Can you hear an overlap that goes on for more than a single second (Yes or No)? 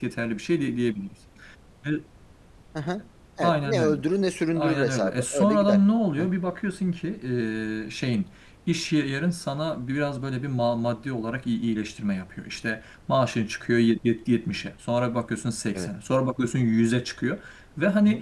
Yes